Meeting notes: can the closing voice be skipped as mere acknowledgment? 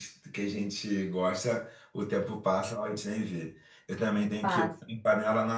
Yes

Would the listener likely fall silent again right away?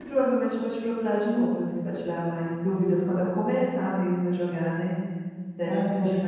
No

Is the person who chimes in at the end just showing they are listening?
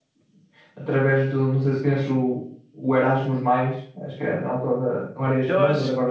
No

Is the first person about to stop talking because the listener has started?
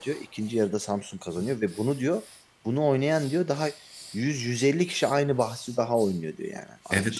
Yes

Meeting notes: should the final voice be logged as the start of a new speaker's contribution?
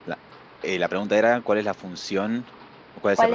Yes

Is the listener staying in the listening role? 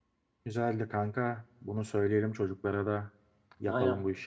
No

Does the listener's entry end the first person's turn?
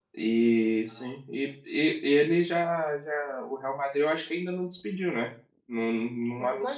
Yes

